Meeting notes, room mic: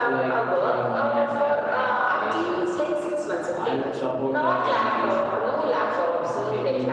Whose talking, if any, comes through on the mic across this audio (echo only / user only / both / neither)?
both